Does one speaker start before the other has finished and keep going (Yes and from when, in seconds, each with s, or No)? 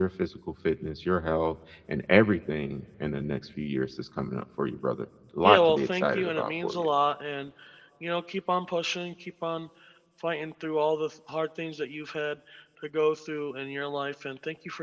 Yes, from 5.4 s